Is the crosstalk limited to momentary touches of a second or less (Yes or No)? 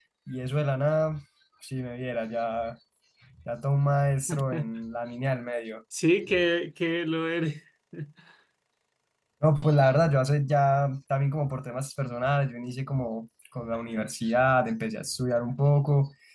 Yes